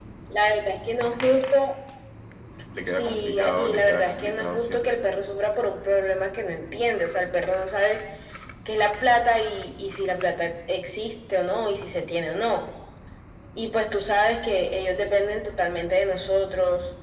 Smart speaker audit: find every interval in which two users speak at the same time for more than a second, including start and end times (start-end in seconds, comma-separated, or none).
2.9-4.8